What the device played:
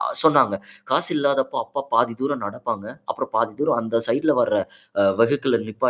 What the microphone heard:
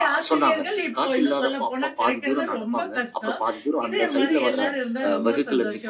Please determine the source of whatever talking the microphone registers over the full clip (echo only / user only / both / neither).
both